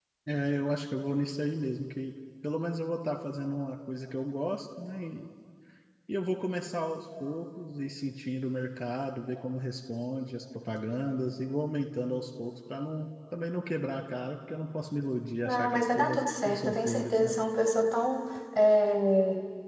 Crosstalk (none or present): present